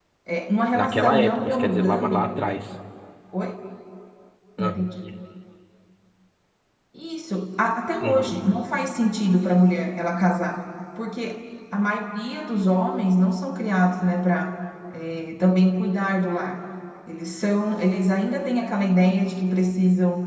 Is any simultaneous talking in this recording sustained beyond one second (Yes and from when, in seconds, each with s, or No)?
Yes, from 0.7 s